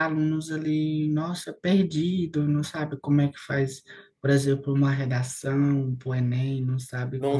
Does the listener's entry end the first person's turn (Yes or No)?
Yes